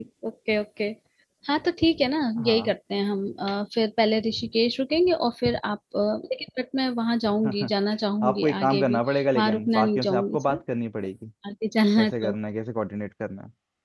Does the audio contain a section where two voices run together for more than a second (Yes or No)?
Yes